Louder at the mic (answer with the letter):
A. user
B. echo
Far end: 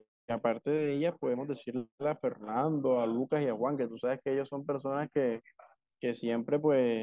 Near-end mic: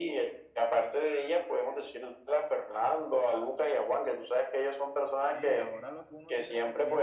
B